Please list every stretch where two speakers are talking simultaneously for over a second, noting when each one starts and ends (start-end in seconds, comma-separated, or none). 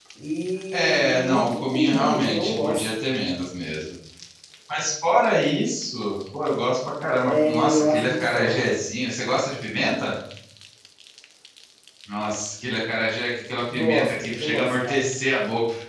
0.7-2.9, 7.2-8.6, 13.7-15.1